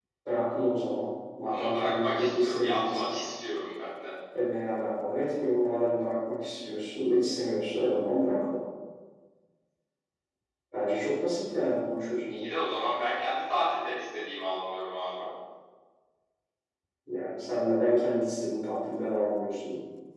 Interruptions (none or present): present